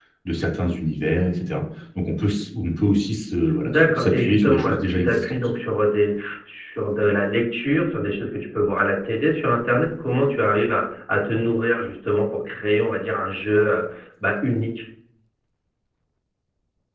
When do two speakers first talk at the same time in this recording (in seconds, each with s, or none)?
3.6 s